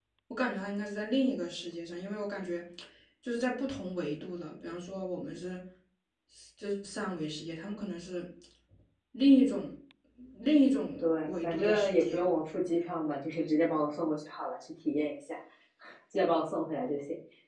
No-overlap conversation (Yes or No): No